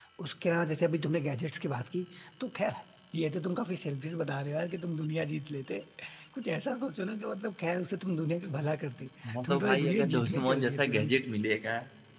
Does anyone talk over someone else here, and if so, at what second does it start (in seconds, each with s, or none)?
9.4 s